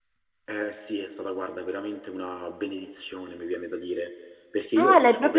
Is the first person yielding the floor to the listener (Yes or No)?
Yes